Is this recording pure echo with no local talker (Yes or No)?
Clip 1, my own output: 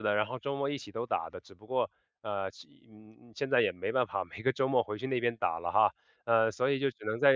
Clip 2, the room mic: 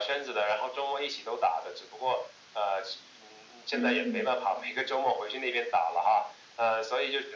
No